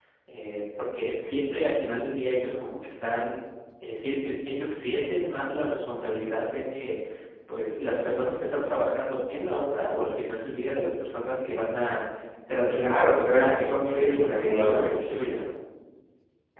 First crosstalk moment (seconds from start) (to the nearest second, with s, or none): 13 s